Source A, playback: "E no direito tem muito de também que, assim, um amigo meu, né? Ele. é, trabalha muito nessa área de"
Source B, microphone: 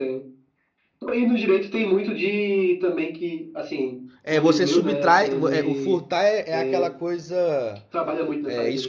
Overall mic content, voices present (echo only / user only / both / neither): both